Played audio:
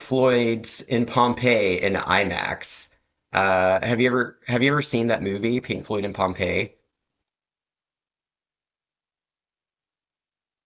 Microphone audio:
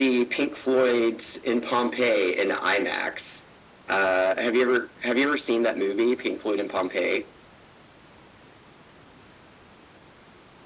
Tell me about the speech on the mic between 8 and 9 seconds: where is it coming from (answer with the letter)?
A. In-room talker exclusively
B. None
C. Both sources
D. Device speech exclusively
B